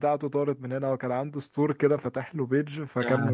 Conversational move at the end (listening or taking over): listening